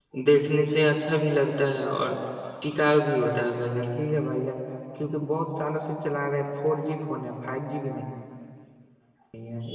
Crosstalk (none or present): none